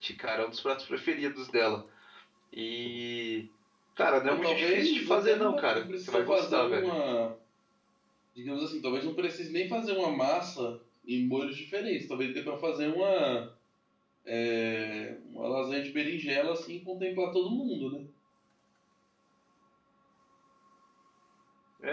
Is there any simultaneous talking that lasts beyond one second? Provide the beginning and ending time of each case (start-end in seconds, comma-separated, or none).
4.3-6.9